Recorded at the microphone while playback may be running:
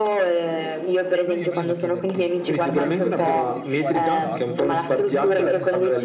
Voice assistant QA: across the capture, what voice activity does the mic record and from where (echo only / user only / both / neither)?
both